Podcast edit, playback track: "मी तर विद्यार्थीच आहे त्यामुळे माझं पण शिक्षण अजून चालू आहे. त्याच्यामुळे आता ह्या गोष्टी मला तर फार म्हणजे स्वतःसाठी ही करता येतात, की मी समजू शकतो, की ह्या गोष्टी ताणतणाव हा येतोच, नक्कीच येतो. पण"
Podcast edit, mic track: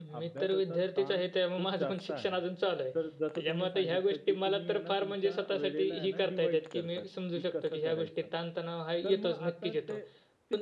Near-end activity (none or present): present